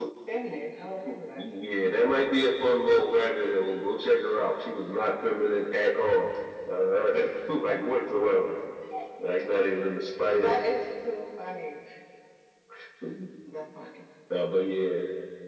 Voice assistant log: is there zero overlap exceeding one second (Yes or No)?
Yes